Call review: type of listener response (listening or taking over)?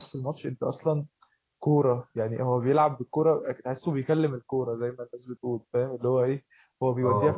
listening